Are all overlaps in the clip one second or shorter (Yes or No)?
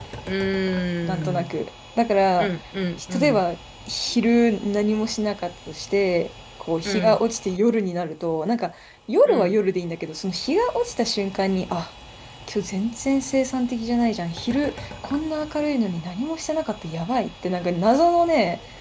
Yes